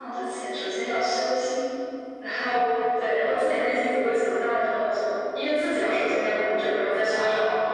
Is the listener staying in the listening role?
No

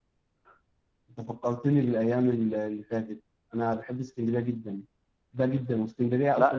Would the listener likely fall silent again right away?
Yes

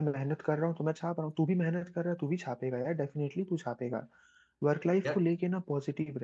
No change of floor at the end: Yes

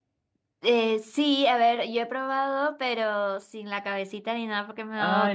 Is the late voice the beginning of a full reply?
Yes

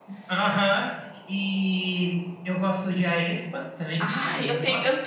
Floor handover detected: Yes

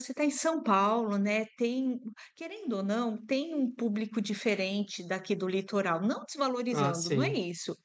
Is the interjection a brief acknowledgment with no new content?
Yes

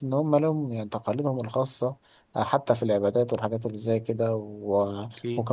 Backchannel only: Yes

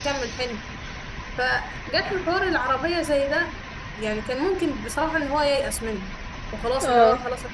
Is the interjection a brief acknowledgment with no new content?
Yes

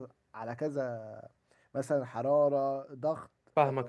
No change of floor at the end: No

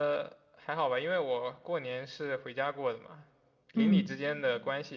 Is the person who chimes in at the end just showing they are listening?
Yes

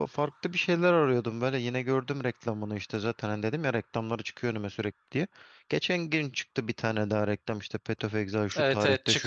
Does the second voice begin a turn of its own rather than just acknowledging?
Yes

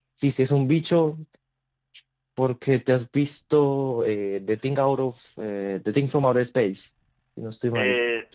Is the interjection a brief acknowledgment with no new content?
No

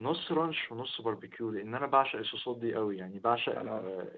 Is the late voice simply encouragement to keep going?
Yes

